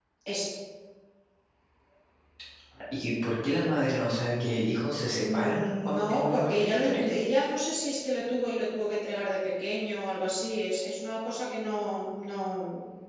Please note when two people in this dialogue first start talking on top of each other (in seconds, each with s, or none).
5.3 s